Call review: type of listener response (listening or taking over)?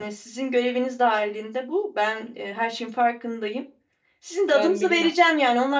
listening